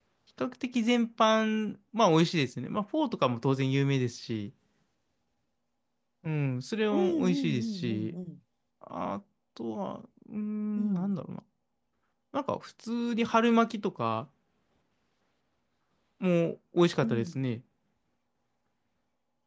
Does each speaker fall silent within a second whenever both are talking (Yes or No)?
No